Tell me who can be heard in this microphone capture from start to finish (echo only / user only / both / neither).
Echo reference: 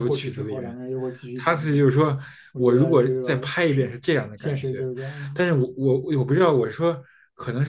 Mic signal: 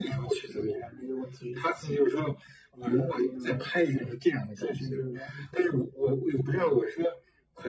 echo only